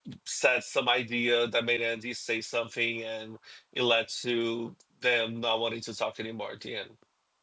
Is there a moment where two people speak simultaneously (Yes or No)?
No